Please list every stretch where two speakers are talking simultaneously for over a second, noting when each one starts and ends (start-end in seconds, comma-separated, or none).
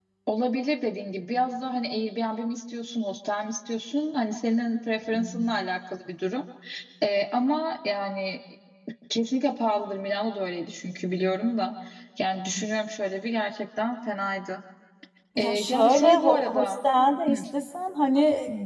15.4-16.7